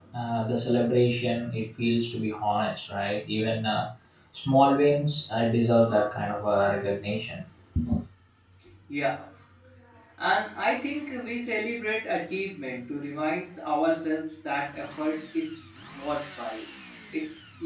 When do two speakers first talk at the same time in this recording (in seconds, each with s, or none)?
none